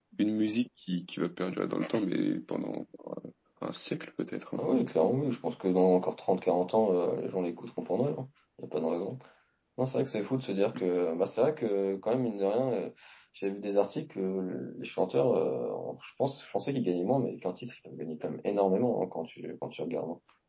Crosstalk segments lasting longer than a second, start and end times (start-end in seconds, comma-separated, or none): none